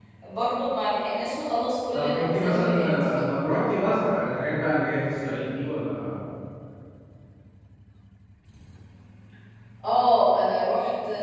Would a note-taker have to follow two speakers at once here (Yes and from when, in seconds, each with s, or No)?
Yes, from 1.9 s